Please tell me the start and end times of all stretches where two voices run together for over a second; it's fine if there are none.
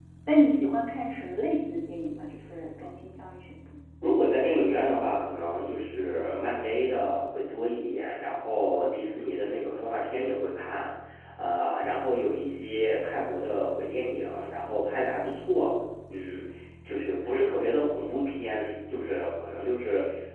none

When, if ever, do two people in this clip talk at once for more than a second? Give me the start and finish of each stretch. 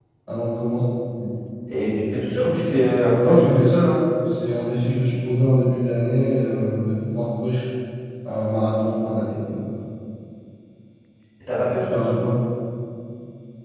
none

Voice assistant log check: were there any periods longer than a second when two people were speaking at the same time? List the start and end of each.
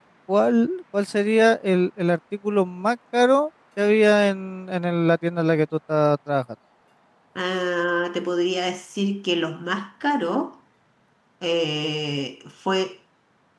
none

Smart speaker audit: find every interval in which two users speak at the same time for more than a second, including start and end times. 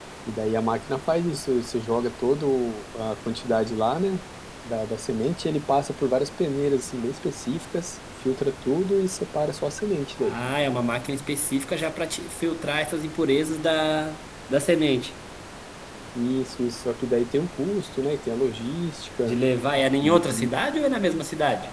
none

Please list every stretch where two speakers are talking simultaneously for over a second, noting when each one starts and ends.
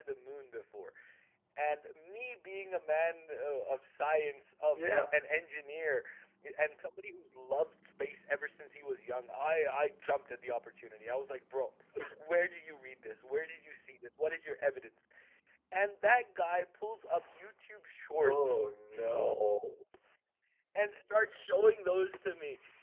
none

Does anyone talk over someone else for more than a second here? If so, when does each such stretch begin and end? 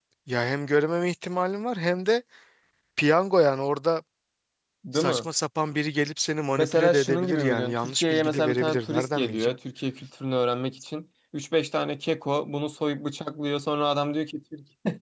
6.6-9.6

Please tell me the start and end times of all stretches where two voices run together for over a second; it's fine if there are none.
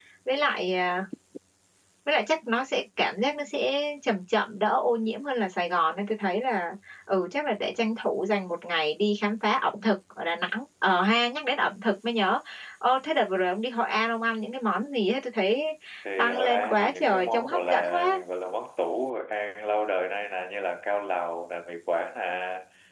16.2-18.2

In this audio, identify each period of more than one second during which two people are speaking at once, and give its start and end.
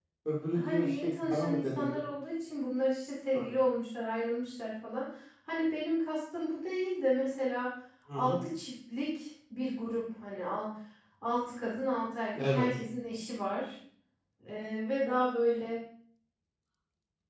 0.5-1.9

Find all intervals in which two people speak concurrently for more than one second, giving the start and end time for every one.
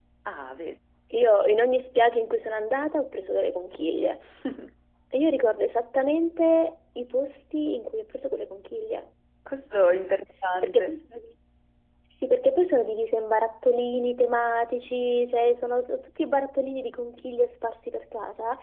none

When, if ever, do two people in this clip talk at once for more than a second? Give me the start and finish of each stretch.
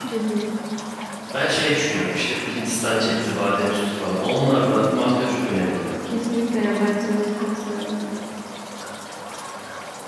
none

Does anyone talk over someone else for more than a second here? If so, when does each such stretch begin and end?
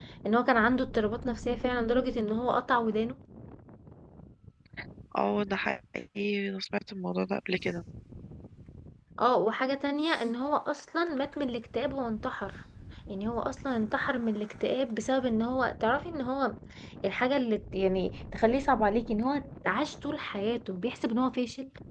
none

